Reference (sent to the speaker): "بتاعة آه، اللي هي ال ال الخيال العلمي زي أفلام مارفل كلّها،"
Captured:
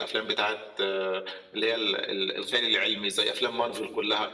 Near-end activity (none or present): none